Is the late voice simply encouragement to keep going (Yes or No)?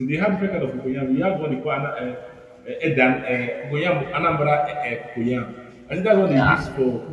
Yes